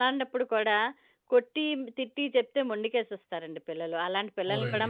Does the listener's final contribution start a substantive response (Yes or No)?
No